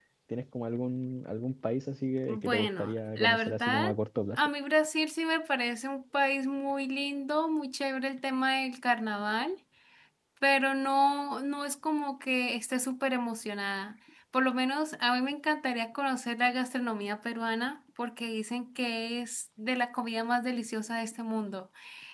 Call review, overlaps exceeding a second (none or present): present